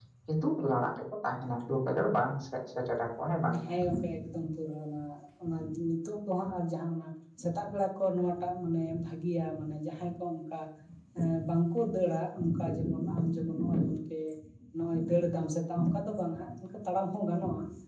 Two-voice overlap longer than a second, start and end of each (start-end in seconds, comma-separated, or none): none